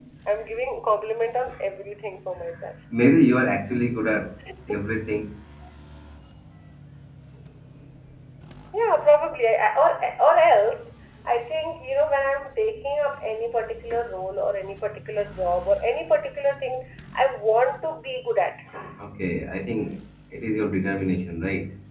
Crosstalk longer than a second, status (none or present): none